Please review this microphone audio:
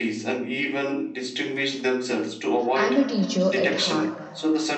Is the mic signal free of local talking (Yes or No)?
No